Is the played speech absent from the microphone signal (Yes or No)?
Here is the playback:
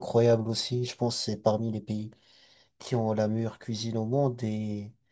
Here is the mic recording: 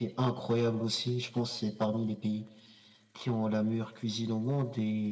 No